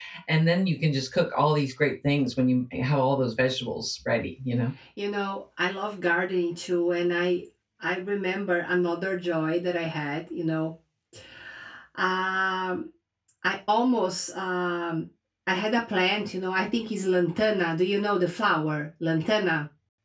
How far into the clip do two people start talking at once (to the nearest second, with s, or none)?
none